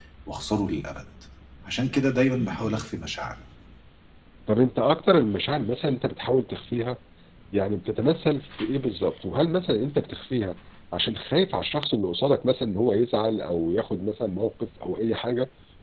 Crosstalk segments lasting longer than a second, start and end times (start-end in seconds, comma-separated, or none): none